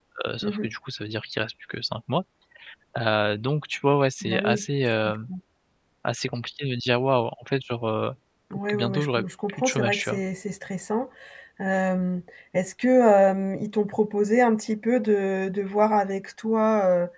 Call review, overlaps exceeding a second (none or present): present